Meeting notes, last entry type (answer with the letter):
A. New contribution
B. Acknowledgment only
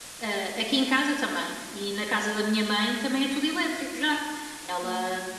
B